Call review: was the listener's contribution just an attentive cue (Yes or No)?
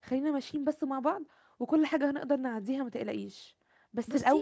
Yes